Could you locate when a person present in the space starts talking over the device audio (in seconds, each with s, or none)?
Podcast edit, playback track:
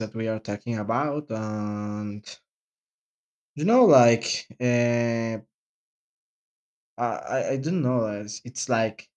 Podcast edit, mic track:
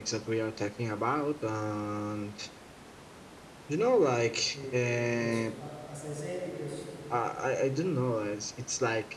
4.5 s